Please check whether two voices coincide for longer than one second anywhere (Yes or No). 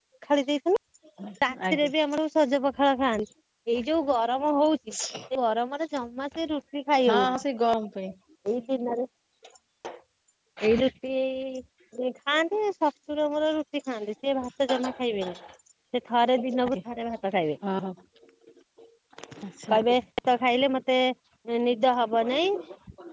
No